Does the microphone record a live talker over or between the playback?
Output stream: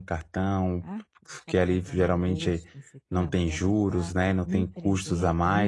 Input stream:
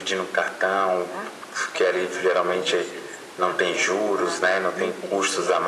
No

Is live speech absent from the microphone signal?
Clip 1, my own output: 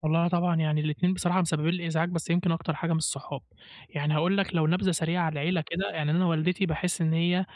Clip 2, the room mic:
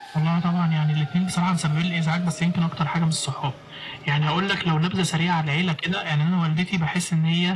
Yes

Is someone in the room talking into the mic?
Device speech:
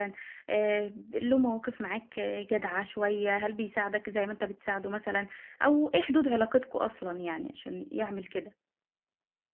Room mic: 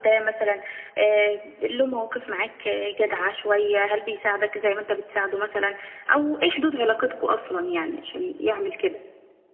No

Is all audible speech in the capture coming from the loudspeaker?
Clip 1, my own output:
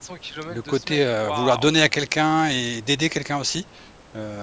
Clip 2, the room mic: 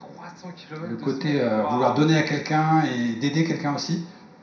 Yes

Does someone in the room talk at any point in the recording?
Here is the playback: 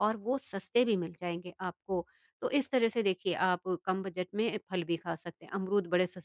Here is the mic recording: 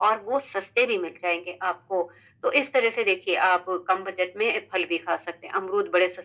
No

